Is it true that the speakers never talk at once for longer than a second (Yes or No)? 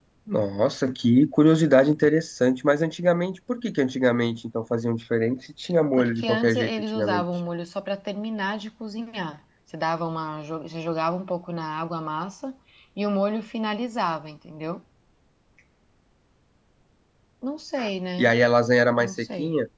No